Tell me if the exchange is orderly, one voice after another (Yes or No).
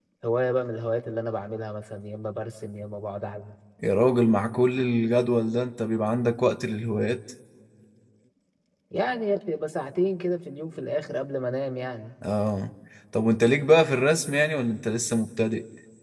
Yes